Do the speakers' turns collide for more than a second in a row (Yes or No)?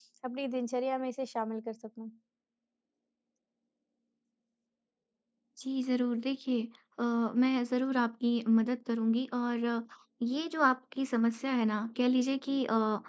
No